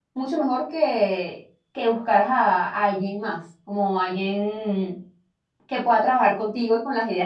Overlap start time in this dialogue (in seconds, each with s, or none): none